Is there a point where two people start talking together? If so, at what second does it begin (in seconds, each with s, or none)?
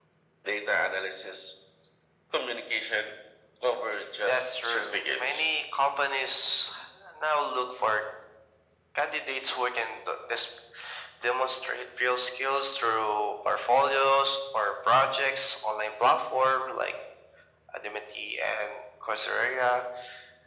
4.3 s